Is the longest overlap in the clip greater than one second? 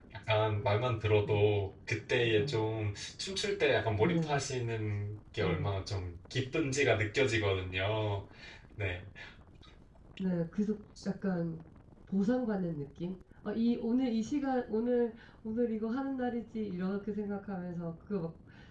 No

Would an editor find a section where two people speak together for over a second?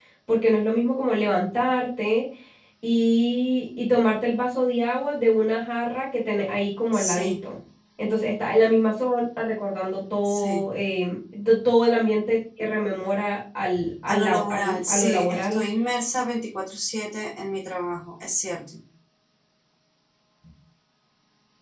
Yes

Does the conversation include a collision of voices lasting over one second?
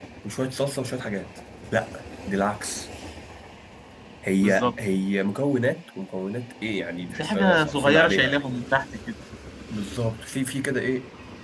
Yes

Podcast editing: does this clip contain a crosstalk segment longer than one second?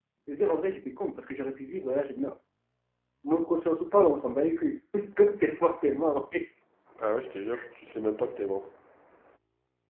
No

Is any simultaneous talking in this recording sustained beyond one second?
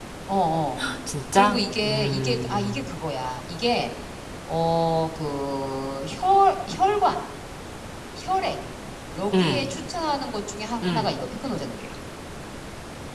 Yes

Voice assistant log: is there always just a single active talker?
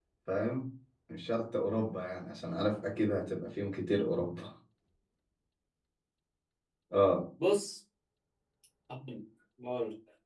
Yes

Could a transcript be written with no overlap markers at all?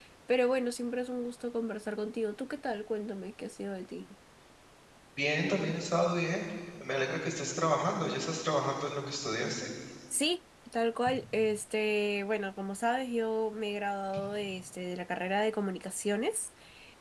Yes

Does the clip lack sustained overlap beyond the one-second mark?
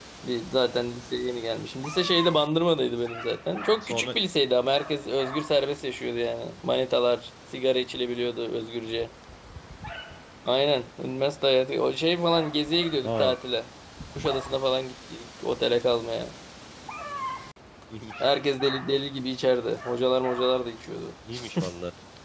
Yes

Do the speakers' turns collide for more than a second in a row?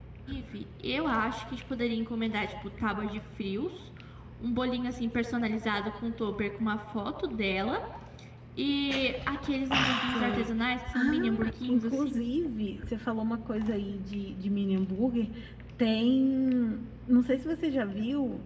Yes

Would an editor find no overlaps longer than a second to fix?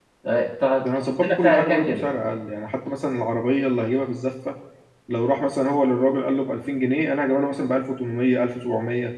No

